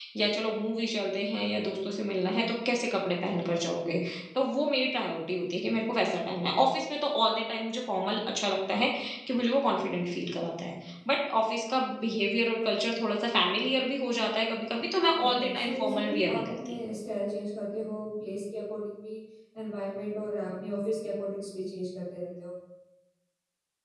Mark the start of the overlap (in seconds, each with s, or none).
15.1 s